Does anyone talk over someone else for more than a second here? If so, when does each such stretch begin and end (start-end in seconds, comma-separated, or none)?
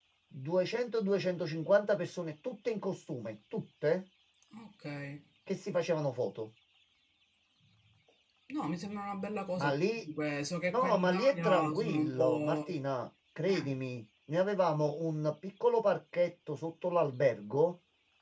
10.7-12.6